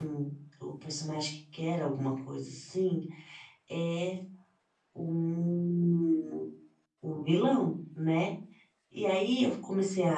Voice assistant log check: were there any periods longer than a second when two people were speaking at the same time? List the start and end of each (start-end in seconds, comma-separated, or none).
none